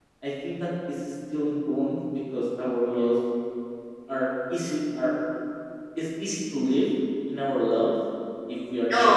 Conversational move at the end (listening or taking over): listening